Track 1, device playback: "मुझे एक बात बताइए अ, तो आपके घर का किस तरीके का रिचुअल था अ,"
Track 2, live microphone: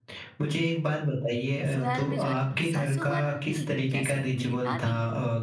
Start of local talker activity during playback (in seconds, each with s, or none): 1.6 s